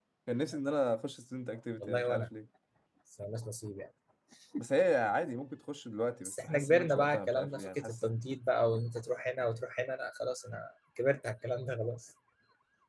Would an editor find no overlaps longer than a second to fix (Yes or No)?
No